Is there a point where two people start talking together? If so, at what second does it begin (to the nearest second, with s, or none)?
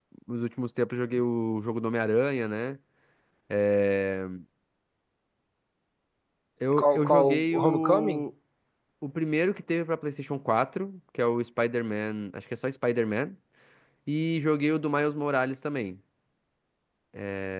7 s